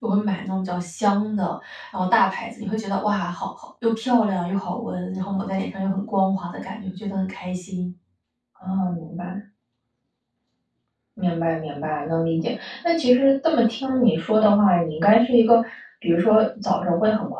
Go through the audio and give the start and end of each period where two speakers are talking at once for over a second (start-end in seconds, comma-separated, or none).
none